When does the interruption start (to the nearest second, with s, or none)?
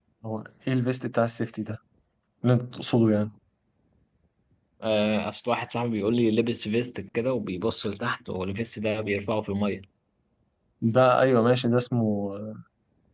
none